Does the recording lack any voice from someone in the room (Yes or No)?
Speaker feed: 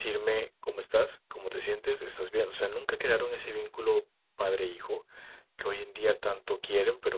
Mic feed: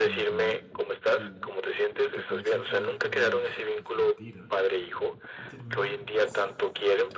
No